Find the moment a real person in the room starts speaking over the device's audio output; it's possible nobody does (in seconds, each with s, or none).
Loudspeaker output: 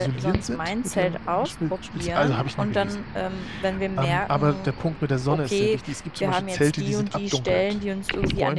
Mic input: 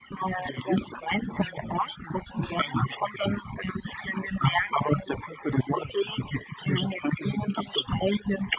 none